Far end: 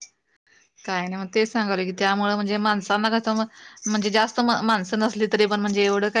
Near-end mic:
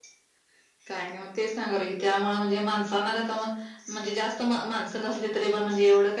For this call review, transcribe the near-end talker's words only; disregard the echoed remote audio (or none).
none